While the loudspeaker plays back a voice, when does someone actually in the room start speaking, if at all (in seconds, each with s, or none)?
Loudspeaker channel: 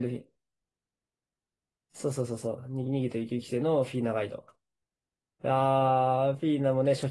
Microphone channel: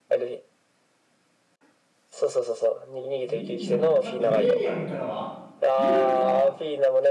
3.2 s